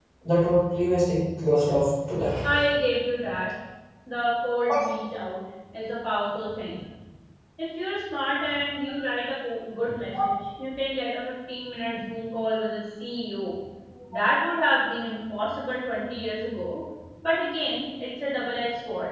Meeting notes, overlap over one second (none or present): none